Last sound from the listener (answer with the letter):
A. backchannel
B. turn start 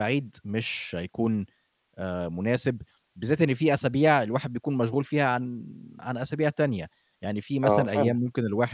A